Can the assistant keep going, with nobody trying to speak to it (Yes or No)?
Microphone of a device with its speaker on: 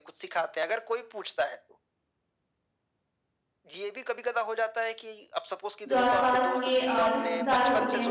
No